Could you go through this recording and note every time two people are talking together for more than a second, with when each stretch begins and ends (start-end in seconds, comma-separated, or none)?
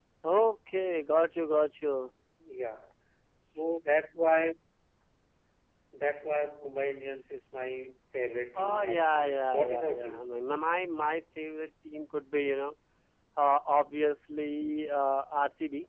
8.6-10.2